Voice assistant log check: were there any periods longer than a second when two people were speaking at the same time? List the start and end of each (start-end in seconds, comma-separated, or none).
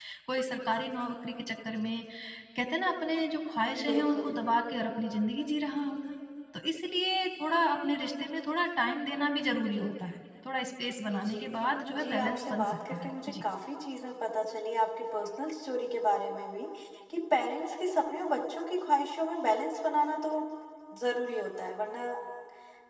12.0-13.4